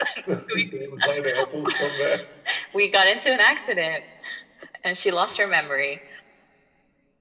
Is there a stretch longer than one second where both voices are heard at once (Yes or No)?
No